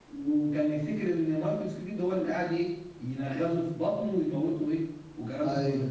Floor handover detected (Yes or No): Yes